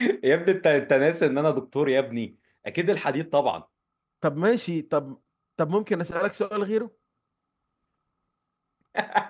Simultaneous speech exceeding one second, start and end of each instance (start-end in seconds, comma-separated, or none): none